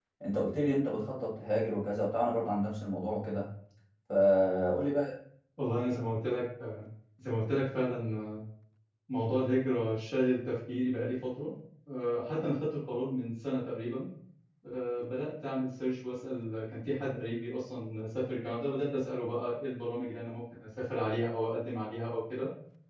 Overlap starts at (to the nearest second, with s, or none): none